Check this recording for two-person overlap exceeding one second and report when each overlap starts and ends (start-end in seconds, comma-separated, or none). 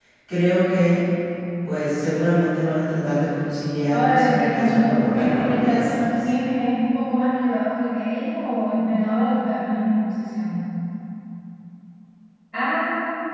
3.9-6.3